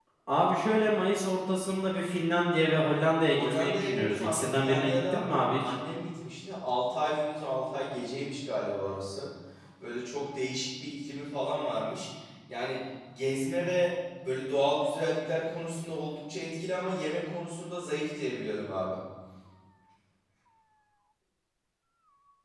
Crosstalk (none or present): present